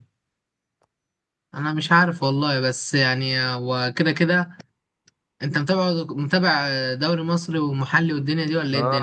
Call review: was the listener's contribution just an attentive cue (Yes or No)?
No